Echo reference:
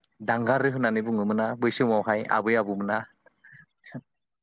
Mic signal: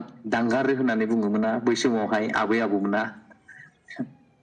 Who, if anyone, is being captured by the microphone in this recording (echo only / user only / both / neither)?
echo only